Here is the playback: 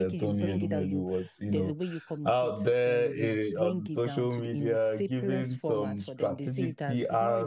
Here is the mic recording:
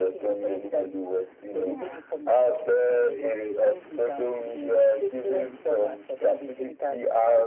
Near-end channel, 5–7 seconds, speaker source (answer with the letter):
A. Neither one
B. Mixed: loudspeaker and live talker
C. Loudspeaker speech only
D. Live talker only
C